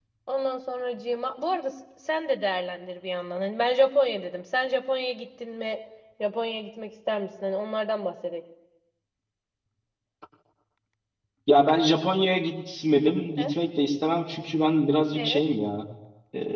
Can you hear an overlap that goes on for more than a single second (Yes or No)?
No